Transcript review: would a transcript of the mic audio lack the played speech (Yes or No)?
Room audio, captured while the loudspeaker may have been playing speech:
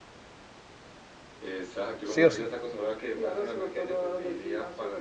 No